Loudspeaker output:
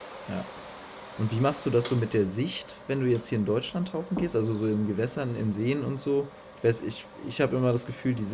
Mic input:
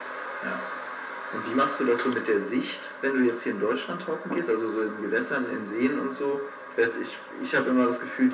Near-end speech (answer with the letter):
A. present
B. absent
B